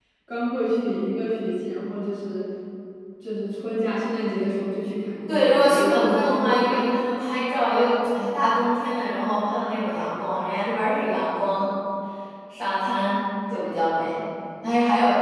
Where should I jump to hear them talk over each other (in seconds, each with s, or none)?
5.3 s